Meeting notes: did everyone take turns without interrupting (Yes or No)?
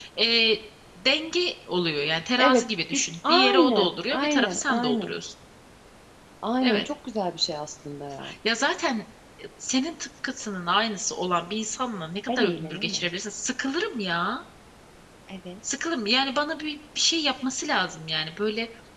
No